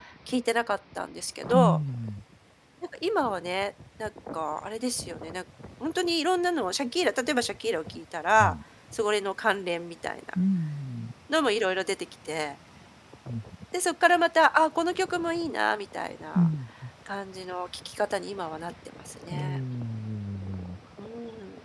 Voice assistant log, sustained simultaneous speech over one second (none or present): none